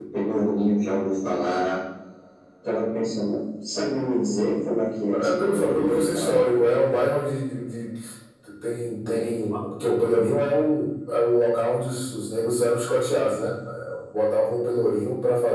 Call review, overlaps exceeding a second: present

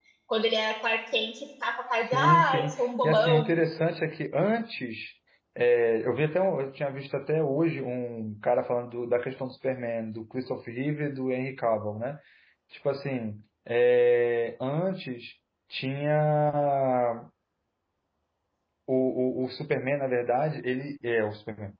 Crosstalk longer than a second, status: present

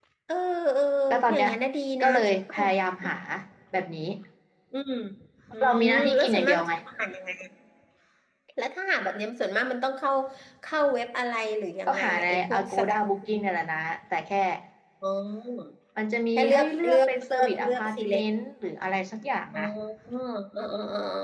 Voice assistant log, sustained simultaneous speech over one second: present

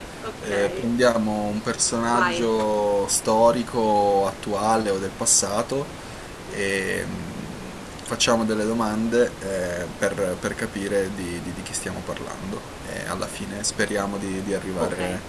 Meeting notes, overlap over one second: none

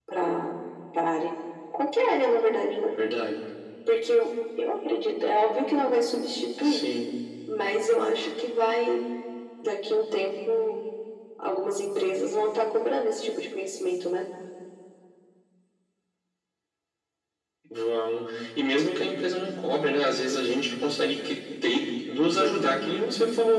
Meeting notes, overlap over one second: none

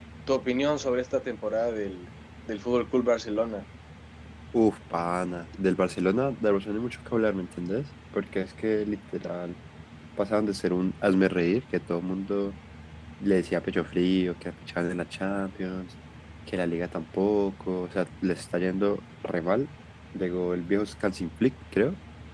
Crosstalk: none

